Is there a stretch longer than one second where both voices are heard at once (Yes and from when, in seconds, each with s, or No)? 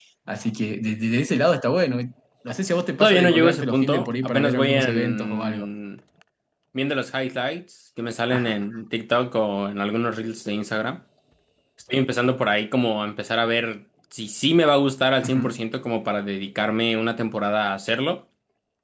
Yes, from 3.0 s